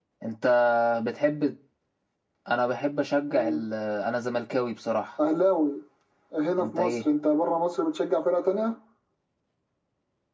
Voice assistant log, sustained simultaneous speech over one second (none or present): none